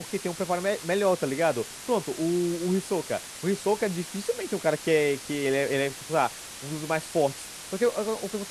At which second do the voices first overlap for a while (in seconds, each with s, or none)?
none